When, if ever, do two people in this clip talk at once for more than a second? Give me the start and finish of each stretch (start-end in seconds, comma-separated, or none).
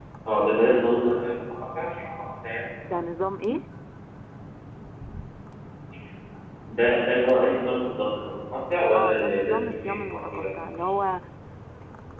8.9-10.4